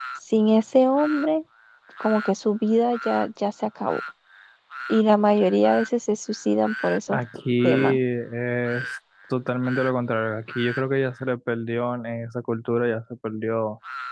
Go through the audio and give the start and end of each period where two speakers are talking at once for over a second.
none

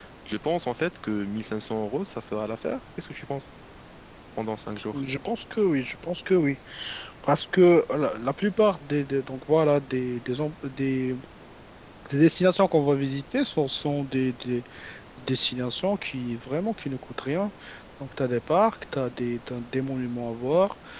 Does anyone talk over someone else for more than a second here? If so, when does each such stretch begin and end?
none

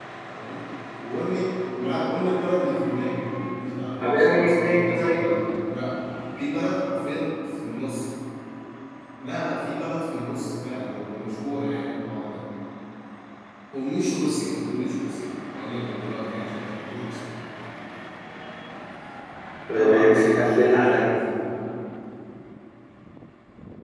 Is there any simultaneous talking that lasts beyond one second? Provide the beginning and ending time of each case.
4.0-5.2, 19.7-21.1

